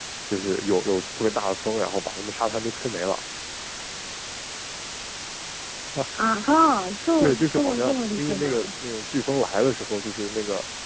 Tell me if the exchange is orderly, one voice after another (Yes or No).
No